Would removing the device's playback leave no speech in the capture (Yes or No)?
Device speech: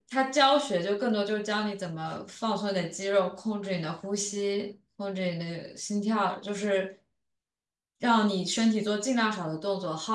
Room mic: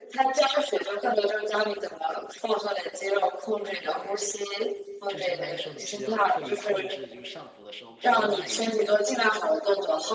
No